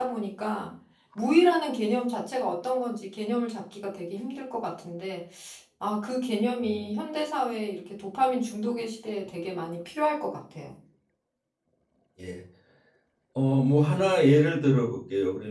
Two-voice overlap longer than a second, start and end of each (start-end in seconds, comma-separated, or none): none